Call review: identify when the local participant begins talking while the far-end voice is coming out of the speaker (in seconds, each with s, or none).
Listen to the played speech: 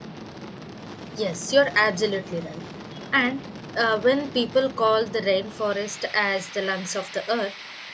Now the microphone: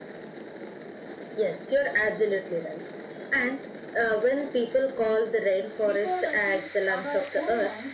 5.8 s